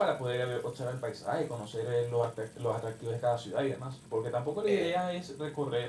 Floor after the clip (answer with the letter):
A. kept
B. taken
A